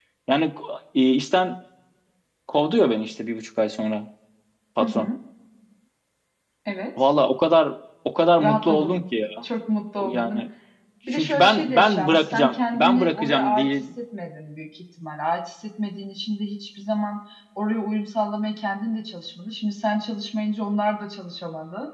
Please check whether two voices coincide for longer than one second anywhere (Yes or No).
Yes